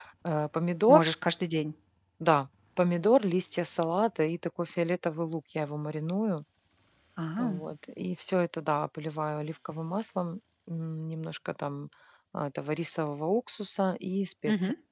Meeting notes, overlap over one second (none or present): none